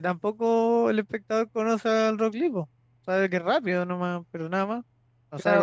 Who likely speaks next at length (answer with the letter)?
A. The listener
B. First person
A